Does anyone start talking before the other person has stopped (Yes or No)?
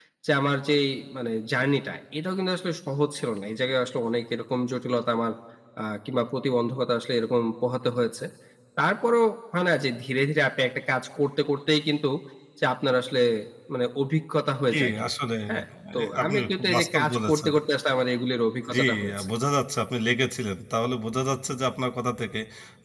Yes